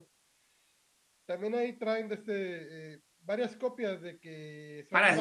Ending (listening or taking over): taking over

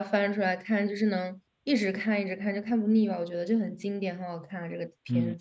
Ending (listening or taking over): taking over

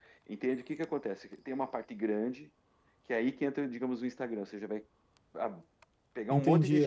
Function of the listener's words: taking over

